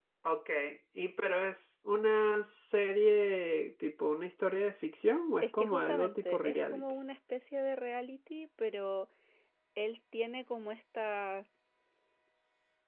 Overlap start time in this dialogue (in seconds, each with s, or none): 5.4 s